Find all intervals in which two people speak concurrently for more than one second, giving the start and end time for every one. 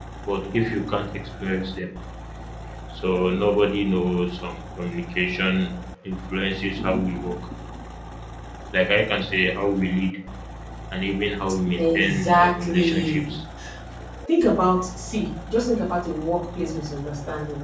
11.9-13.3

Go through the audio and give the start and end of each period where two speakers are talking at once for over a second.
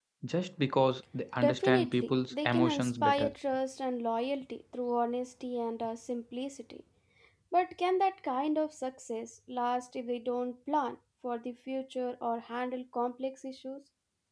1.4-3.3

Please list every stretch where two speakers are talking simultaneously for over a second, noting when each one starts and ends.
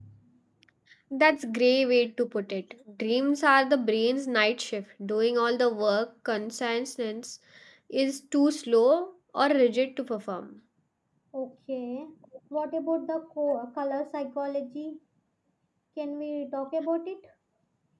none

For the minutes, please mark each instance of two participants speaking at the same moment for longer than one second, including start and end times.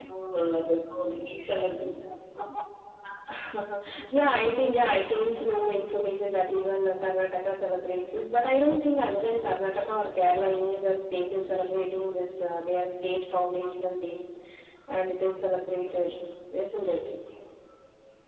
none

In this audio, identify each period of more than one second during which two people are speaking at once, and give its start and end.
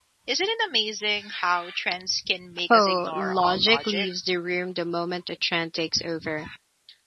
2.7-4.1

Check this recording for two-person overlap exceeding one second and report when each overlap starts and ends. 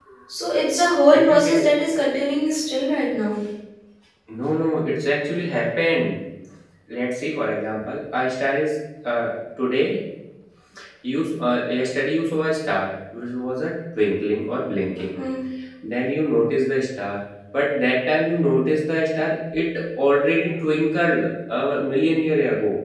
none

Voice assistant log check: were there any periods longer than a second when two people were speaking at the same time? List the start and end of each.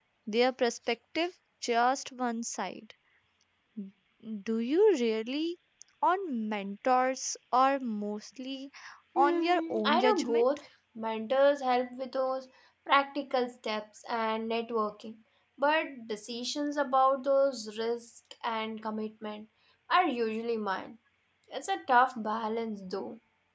9.2-10.5

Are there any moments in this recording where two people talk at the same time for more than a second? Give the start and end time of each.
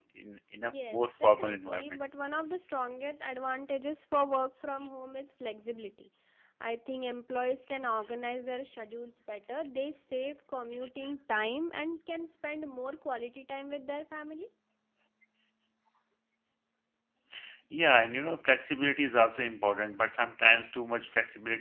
0.6-2.0

